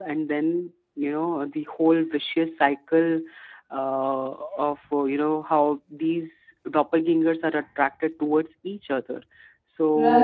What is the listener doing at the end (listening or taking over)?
taking over